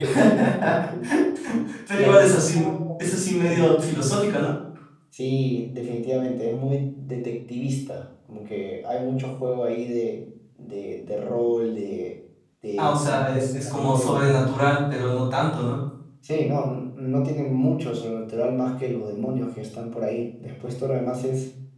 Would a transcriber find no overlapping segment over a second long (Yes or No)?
No